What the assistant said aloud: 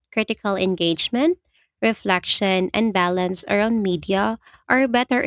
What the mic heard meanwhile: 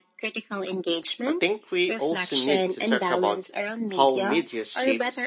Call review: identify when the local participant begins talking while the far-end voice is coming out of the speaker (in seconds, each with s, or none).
1.2 s